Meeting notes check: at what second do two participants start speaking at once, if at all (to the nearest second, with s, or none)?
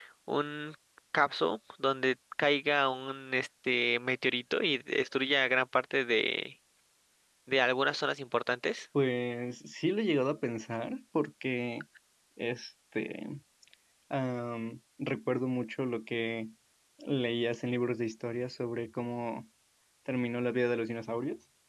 none